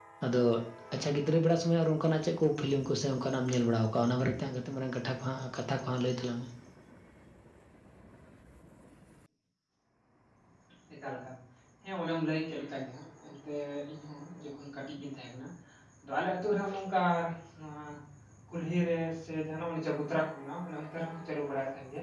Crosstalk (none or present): none